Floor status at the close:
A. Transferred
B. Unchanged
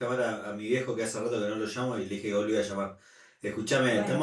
B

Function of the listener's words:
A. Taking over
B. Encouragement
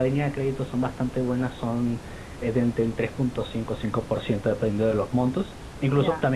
B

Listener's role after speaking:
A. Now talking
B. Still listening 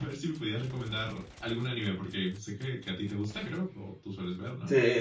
A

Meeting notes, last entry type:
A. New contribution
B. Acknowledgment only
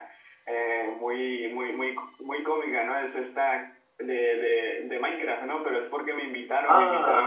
B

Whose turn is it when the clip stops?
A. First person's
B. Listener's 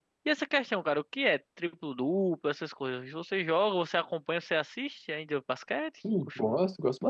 B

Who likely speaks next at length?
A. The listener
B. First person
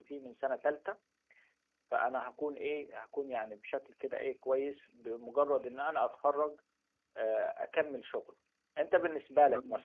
B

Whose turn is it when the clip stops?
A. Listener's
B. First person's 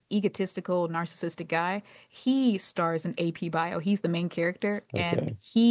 B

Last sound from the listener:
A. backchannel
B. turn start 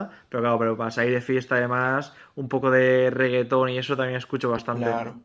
B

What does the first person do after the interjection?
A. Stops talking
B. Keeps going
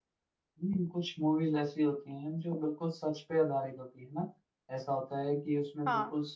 B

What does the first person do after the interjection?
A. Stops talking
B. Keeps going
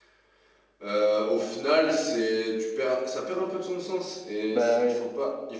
B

